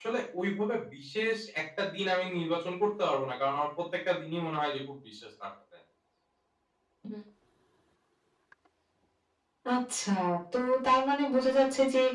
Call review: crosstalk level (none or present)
none